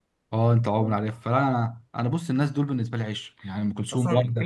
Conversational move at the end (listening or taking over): taking over